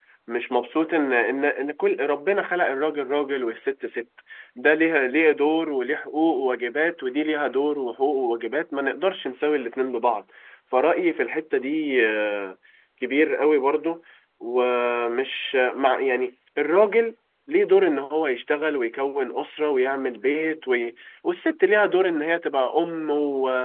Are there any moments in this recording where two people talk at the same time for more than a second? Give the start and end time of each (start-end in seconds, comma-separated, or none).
none